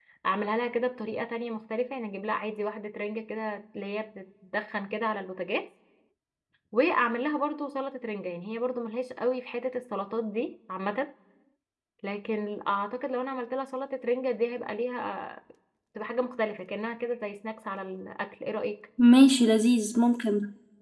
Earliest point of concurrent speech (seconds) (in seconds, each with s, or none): none